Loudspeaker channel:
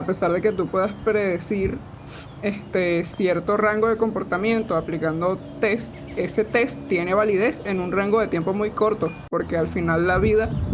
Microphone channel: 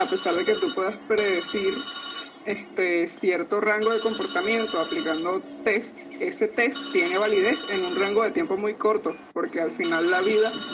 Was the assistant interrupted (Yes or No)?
No